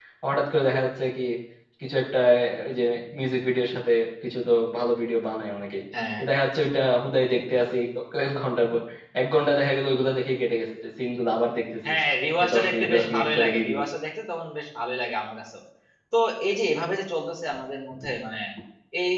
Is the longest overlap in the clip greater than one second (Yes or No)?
Yes